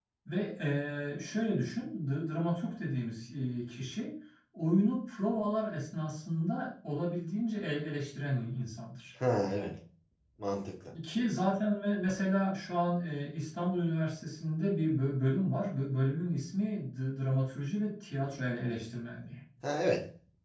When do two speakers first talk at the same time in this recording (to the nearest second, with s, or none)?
none